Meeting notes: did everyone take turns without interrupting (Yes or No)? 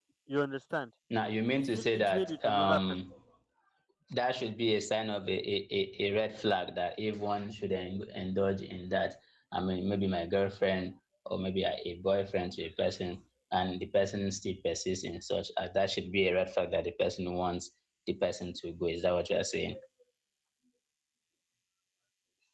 No